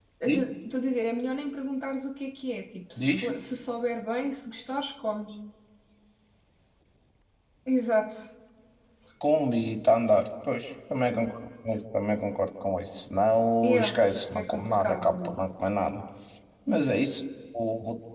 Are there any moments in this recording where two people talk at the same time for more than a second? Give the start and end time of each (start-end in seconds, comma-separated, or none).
13.6-15.4